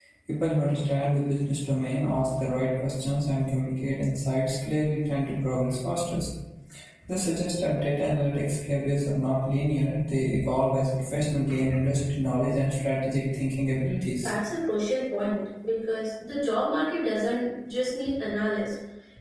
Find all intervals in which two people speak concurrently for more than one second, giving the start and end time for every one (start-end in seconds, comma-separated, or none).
none